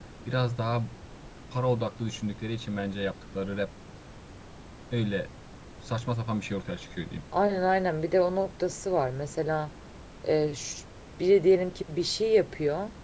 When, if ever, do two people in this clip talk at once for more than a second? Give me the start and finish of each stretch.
none

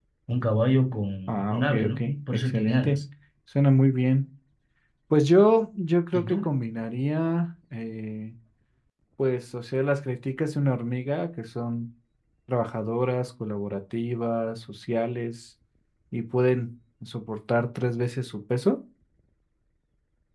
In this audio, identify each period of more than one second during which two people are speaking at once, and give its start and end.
1.3-3.0

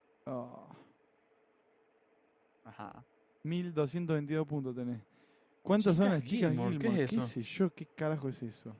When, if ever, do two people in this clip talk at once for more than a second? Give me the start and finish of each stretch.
5.8-7.3

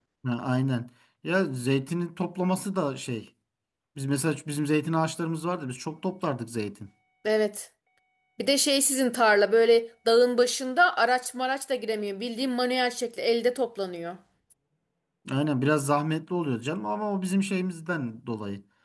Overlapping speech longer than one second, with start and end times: none

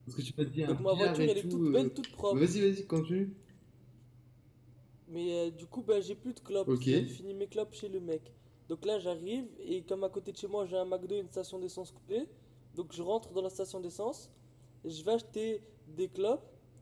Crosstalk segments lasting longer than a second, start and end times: 0.7-1.9

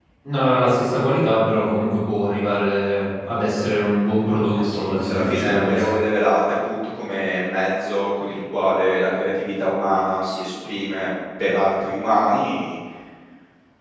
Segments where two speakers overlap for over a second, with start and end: 4.6-5.9

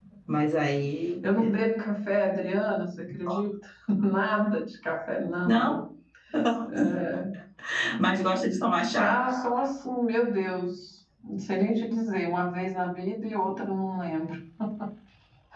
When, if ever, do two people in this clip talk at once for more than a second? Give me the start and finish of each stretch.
none

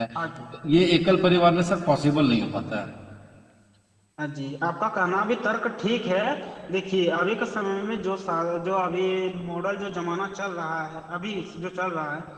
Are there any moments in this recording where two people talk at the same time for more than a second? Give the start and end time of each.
none

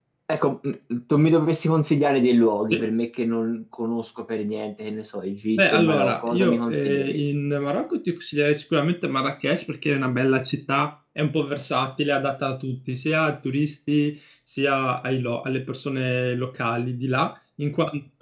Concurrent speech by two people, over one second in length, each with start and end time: 5.6-7.2

